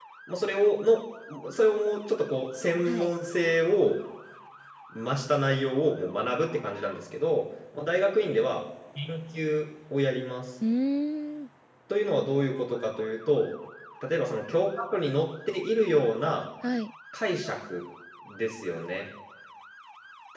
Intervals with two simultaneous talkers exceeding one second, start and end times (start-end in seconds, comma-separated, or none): none